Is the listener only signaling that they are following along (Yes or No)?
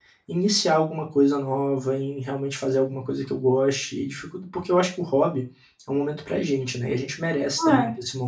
No